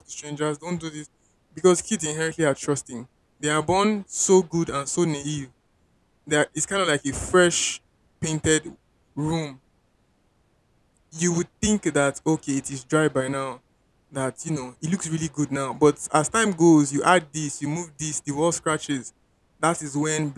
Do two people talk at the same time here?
No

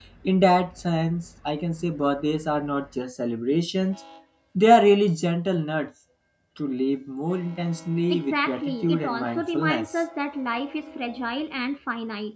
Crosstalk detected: Yes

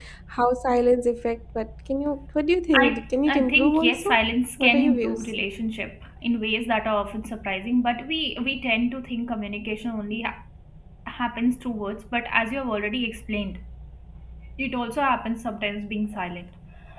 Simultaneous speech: Yes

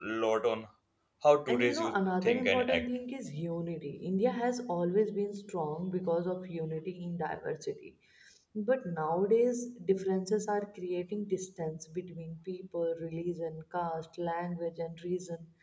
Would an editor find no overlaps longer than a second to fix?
No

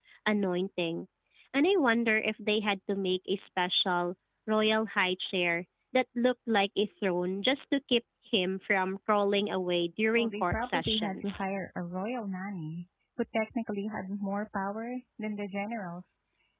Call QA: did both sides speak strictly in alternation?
No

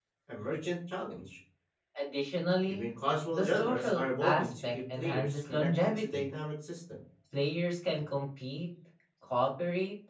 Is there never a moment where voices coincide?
No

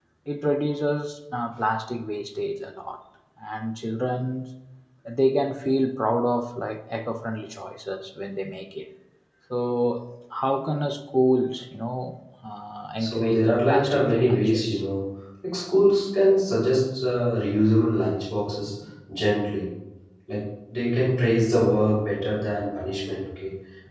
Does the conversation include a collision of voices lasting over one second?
Yes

